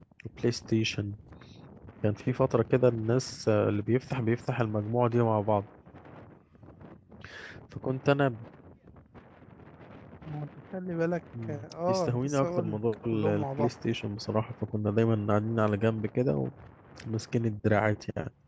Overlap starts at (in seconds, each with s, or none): 11.3 s